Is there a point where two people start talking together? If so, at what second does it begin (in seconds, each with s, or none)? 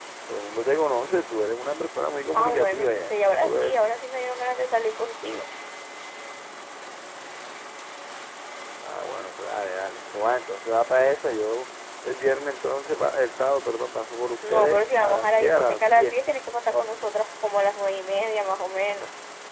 2.3 s